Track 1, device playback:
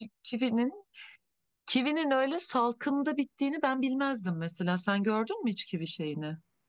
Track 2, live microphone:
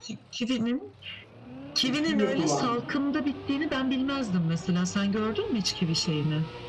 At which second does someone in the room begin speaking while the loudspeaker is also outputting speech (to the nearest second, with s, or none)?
2 s